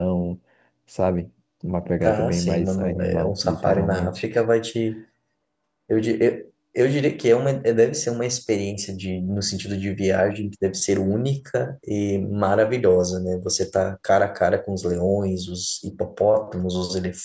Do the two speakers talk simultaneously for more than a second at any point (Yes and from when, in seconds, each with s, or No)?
Yes, from 2.0 s